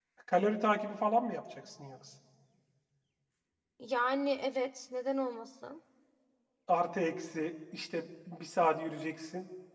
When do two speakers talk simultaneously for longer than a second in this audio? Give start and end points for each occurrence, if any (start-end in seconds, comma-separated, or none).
none